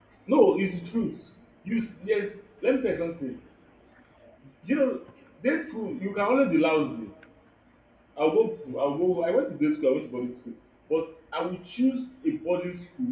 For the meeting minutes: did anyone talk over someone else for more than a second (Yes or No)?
No